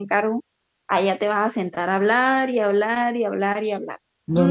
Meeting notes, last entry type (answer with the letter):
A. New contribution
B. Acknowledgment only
A